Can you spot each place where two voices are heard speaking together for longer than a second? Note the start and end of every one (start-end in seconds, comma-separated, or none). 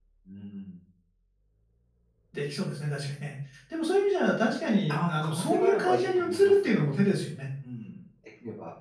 4.9-6.7